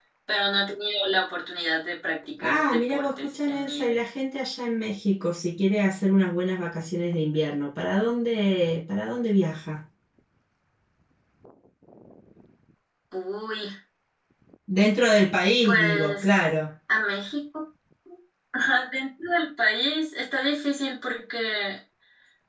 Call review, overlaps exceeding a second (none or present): present